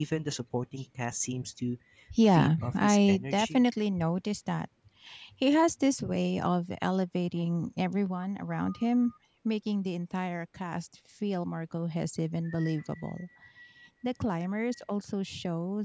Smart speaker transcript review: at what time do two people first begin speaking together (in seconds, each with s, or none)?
2.3 s